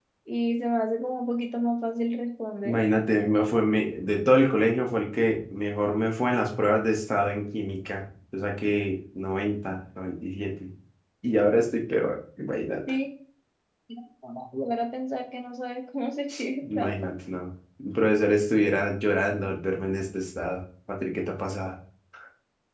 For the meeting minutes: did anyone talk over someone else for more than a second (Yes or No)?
No